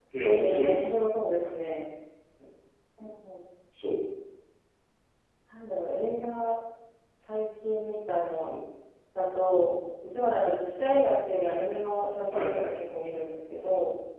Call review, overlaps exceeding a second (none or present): none